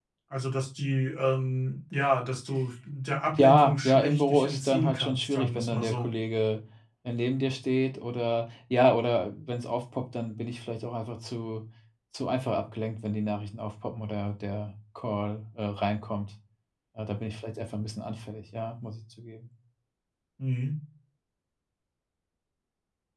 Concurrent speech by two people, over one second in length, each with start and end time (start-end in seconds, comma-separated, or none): 3.3-6.1